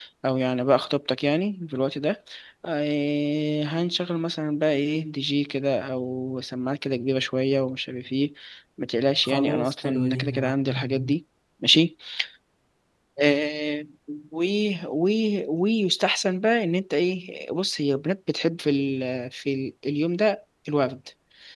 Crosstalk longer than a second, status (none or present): present